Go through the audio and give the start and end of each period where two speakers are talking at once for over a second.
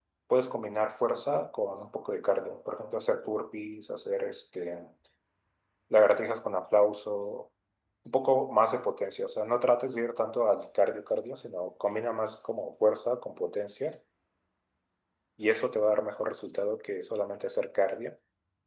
none

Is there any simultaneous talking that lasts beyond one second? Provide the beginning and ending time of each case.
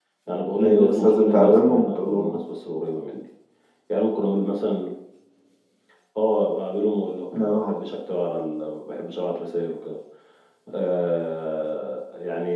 0.6-2.4

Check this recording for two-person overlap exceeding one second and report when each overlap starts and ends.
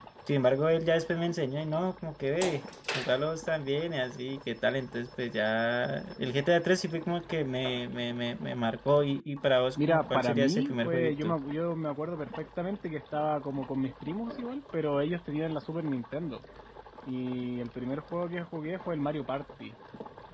9.8-11.3

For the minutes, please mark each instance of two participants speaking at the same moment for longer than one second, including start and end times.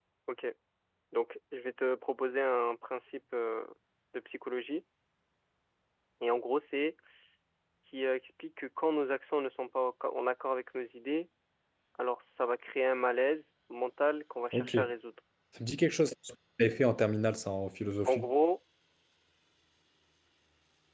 none

